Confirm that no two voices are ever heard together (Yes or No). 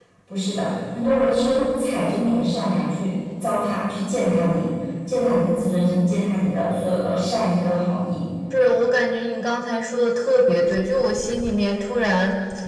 Yes